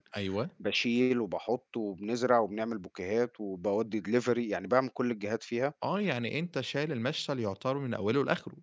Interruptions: none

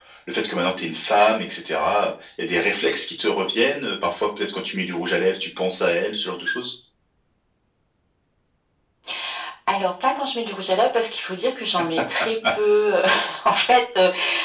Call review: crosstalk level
none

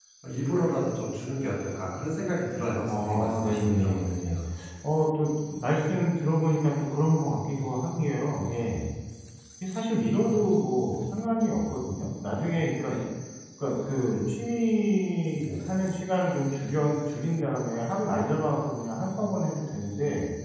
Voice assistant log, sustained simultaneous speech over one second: present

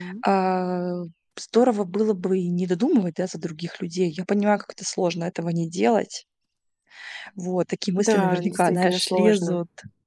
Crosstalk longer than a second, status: present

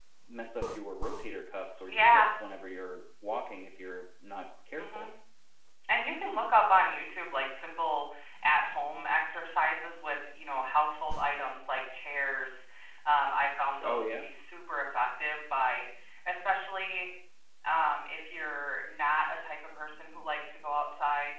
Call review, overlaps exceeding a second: none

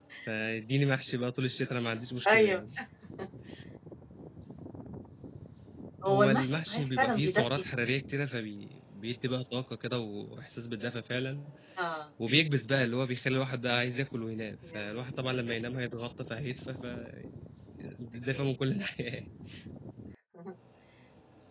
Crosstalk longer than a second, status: present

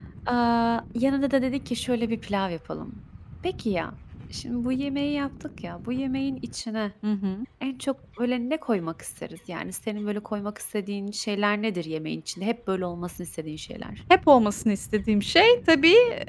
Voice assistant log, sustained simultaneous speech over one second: none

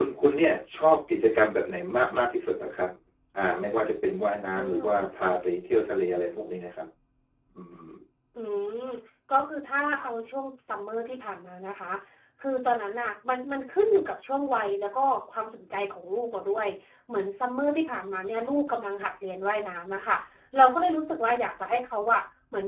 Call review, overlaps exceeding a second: none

